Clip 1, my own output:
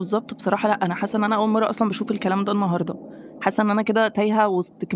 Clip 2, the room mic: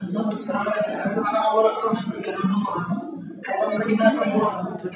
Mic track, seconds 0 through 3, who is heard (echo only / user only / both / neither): echo only